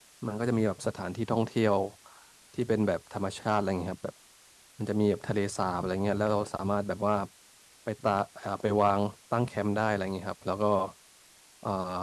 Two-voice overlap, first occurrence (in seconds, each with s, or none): none